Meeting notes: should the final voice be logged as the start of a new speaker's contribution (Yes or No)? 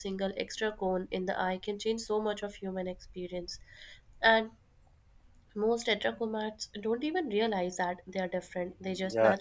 Yes